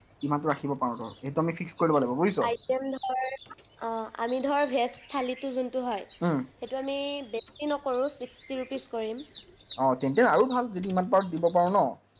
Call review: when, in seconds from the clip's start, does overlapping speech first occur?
none

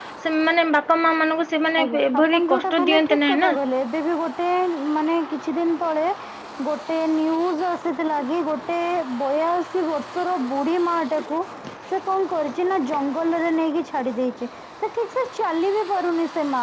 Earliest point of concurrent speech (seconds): 1.8 s

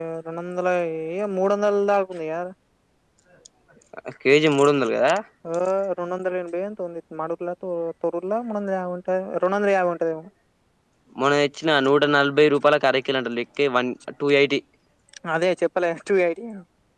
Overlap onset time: none

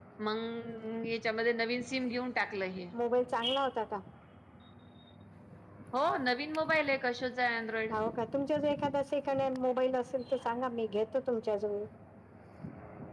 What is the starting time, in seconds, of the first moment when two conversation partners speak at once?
none

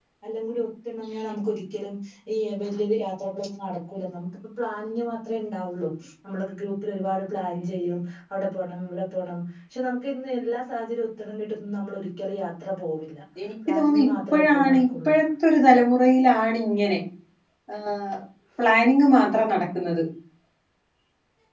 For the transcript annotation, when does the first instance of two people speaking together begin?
13.7 s

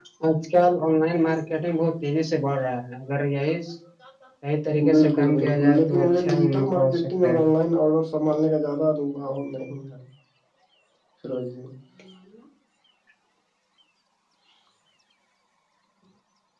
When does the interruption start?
4.7 s

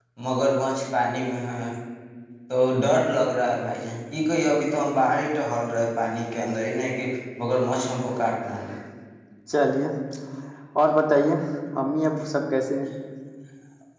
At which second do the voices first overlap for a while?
none

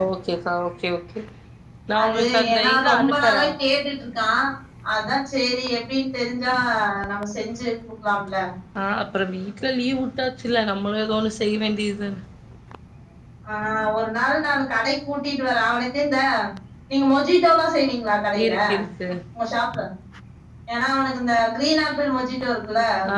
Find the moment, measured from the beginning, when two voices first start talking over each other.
2.0 s

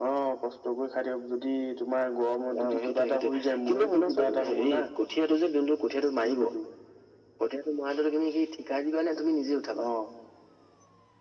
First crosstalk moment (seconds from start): 2.6 s

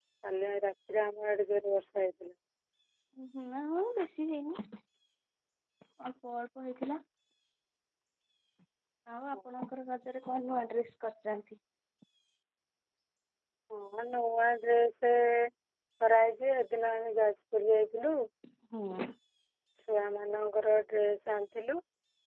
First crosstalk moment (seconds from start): none

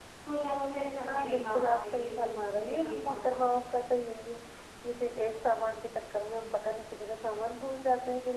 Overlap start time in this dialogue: 1.1 s

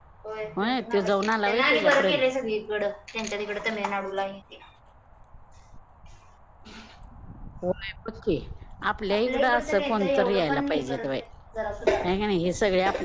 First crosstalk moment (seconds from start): 0.6 s

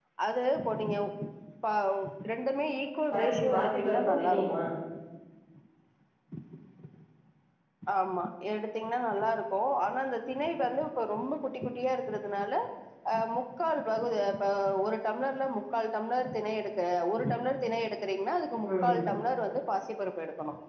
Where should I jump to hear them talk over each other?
3.1 s

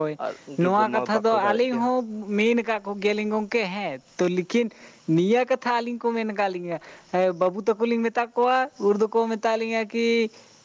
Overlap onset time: 0.6 s

